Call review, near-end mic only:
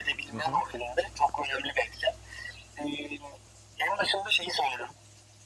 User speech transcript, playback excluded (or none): Hı hı.